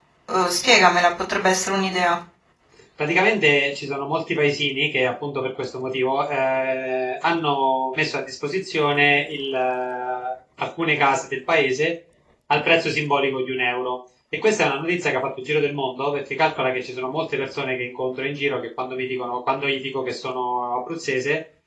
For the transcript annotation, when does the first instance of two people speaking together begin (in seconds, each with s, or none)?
none